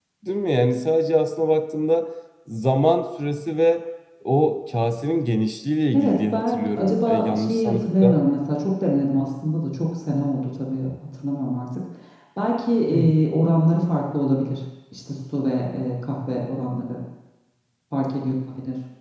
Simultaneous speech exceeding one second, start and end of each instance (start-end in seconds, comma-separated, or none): 5.9-8.2